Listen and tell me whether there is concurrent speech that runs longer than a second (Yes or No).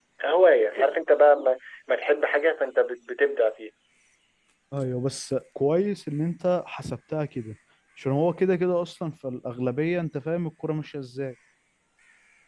No